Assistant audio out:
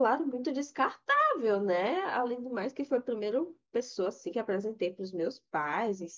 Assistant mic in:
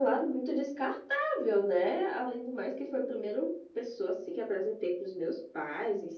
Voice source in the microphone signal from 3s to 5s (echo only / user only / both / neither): echo only